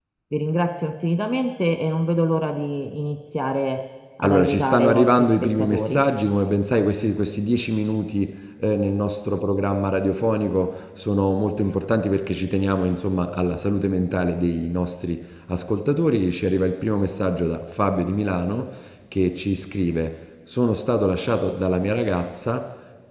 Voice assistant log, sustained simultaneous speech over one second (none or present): present